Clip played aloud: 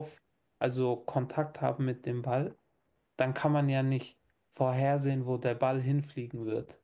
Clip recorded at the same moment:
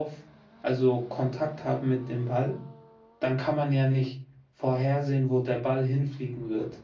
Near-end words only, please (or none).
none